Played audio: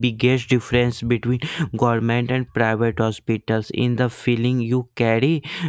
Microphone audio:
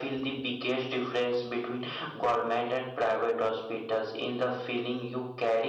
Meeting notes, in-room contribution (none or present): none